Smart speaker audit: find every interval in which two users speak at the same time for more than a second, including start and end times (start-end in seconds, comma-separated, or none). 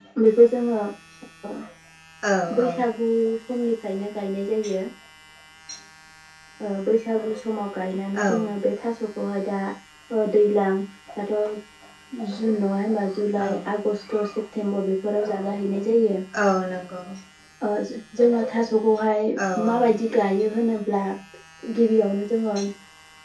none